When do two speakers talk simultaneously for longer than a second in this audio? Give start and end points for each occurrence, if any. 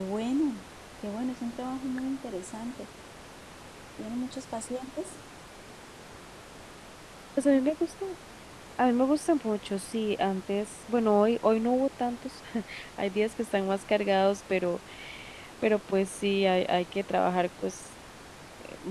none

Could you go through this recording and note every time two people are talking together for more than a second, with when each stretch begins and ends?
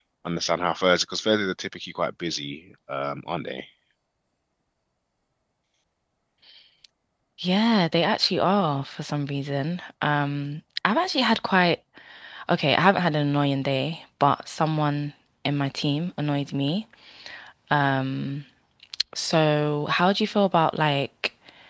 none

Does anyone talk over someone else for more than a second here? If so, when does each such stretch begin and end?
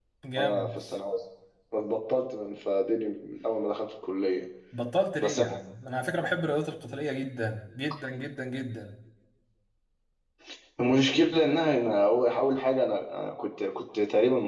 none

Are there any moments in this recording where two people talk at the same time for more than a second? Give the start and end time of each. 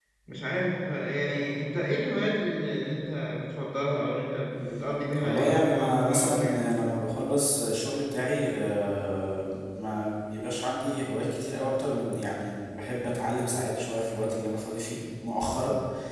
5.2-6.7

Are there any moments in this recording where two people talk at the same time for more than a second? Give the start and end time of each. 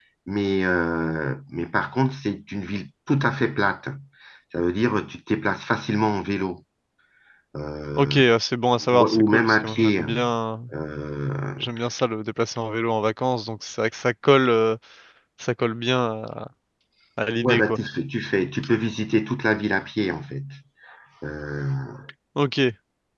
8.8-10.0

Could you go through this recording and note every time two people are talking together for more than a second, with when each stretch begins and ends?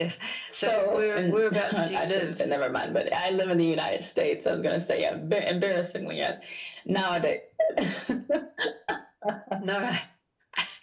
0.5-2.4

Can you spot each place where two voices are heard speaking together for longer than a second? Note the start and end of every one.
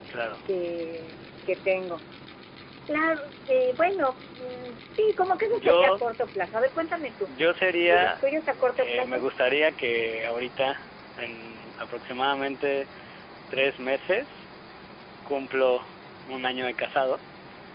none

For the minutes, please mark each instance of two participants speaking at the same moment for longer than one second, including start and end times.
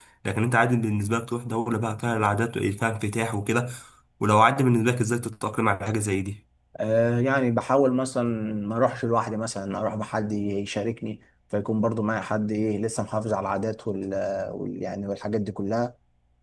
none

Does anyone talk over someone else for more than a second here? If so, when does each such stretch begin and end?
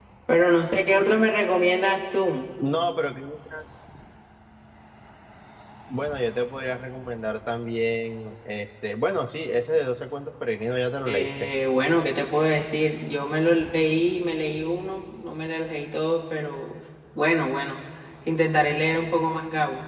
none

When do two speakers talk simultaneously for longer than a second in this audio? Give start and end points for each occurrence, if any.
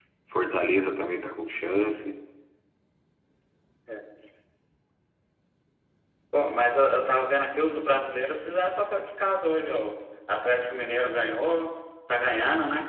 none

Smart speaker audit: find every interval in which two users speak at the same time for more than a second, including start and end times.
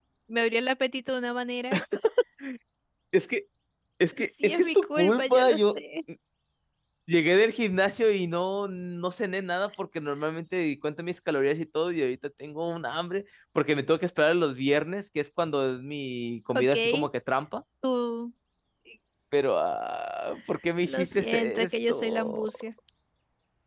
4.4-5.8, 20.8-22.5

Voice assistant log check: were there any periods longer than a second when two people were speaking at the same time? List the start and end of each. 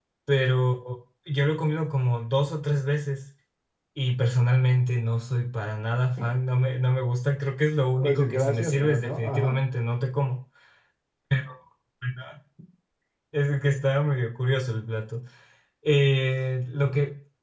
8.0-9.6

